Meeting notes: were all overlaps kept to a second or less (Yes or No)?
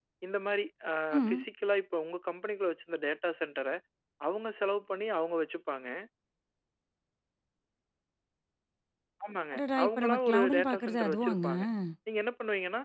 No